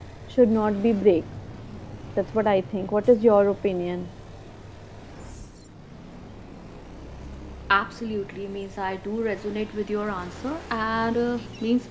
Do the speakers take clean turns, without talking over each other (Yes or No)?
Yes